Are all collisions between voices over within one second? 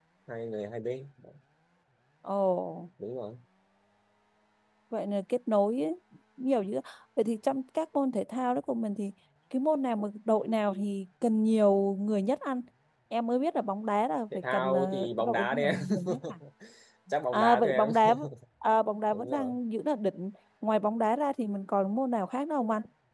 No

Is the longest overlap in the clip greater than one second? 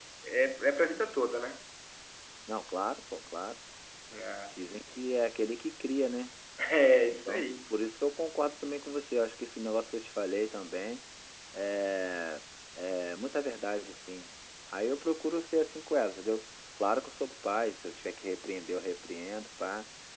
No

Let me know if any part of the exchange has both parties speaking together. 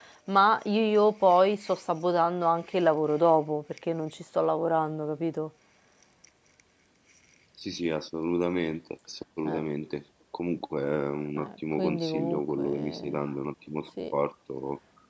Yes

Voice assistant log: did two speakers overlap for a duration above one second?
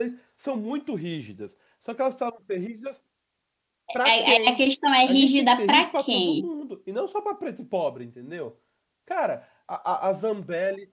Yes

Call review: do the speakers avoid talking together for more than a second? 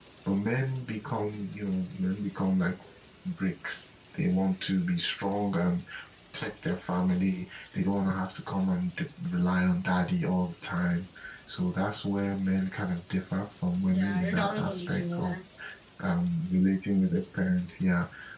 No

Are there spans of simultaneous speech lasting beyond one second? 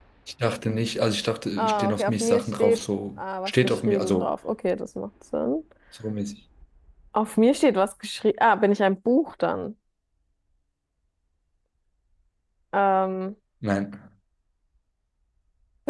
Yes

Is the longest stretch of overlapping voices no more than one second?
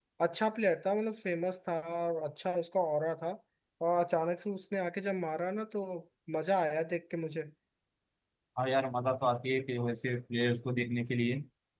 Yes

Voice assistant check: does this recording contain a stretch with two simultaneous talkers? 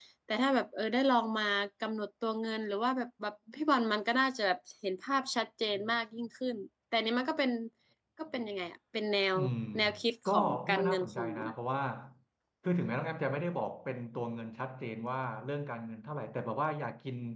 Yes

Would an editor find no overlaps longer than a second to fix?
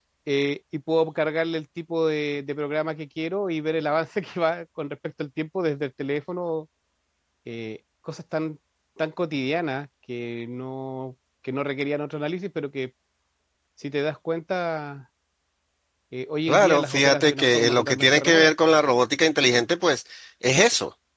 No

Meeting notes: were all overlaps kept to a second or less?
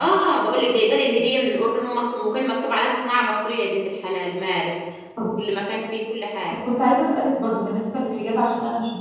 Yes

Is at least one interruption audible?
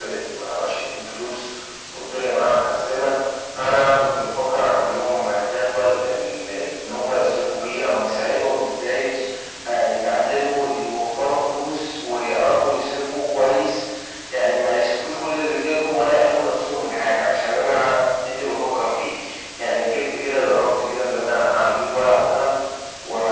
No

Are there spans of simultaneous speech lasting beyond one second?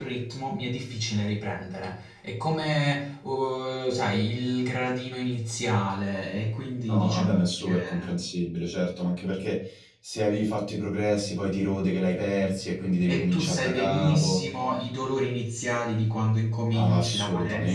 Yes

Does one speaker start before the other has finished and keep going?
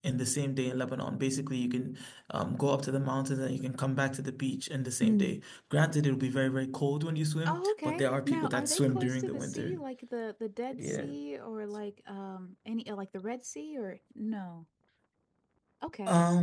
Yes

